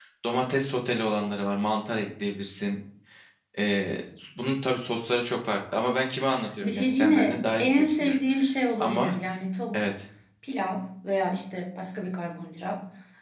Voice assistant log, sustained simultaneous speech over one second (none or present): present